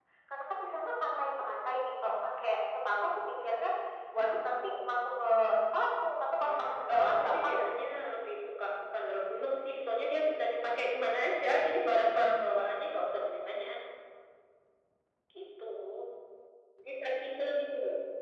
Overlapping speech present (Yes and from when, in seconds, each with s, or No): Yes, from 6.4 s